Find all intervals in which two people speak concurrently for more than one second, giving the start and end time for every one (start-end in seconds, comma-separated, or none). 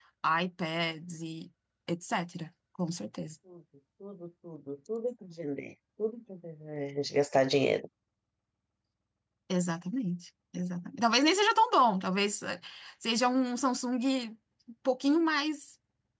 none